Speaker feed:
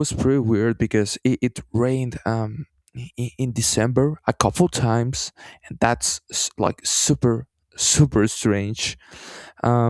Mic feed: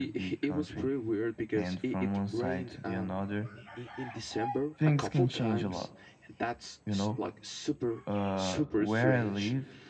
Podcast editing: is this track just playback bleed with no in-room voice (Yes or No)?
No